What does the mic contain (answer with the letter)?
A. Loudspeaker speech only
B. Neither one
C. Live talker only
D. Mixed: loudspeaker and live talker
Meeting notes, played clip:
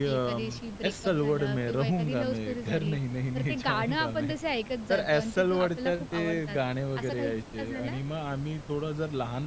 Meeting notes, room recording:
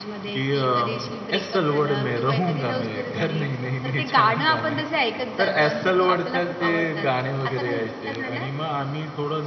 A